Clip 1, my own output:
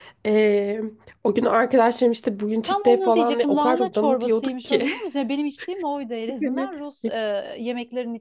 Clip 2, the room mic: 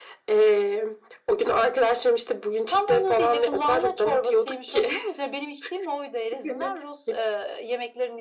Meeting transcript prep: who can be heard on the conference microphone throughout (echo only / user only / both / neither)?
echo only